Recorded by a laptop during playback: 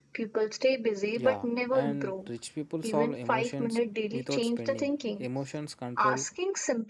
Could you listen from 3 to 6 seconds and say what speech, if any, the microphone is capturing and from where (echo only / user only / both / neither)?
both